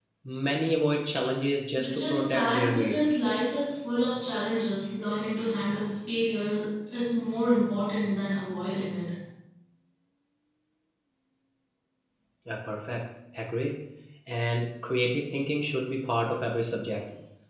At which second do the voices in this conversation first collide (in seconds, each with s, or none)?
1.7 s